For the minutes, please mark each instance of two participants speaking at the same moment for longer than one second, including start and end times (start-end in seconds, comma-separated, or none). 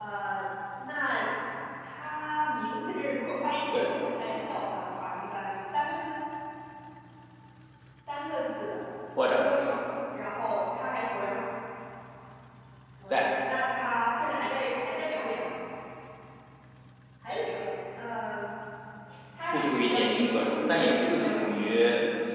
19.5-21.6